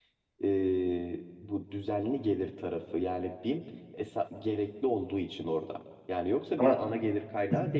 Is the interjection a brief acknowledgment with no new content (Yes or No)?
Yes